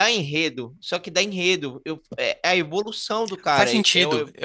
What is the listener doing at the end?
taking over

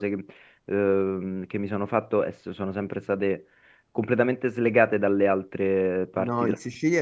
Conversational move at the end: taking over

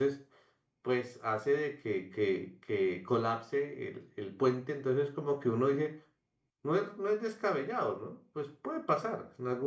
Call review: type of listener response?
listening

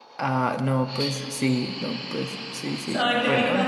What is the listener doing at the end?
taking over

